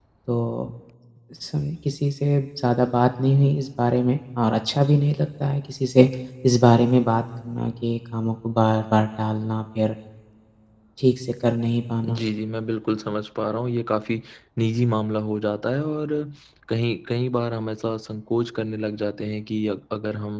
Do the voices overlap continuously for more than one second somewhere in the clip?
No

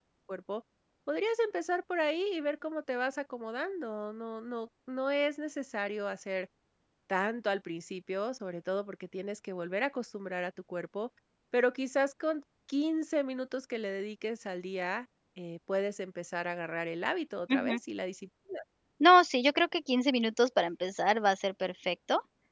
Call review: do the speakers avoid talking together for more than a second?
Yes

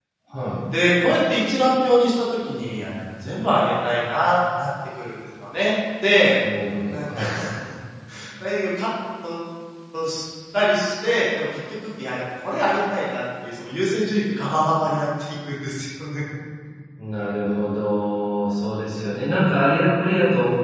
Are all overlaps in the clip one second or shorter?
Yes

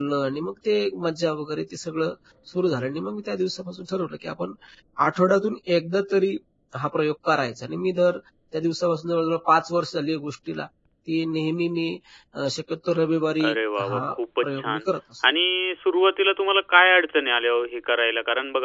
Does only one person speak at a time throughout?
No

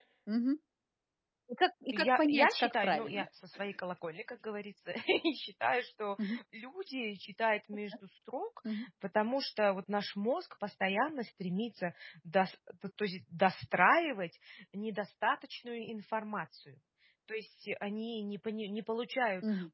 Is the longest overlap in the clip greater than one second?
Yes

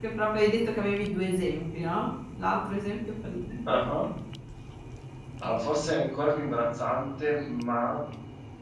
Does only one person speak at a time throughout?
Yes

